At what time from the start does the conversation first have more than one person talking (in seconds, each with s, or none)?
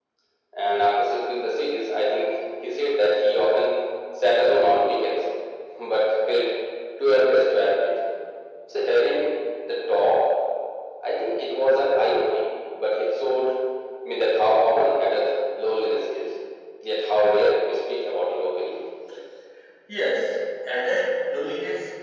none